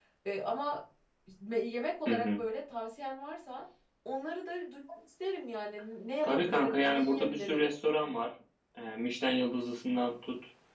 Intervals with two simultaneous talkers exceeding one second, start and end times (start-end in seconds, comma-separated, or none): 6.2-7.7